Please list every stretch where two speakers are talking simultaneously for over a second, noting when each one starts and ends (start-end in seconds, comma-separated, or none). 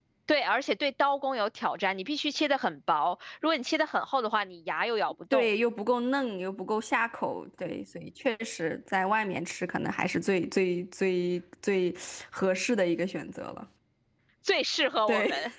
none